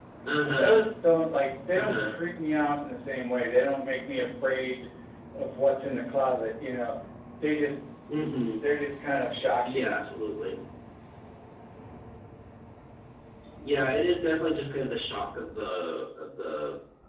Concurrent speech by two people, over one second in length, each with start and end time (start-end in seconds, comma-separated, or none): none